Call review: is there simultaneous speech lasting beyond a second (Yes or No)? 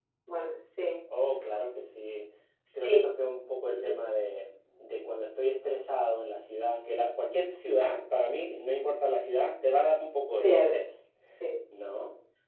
No